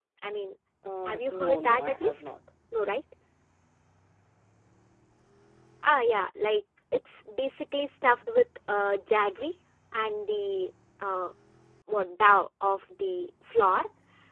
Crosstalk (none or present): present